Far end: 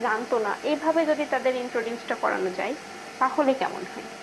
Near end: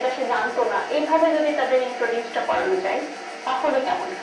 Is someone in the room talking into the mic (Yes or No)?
No